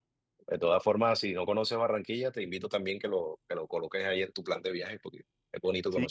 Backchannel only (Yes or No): No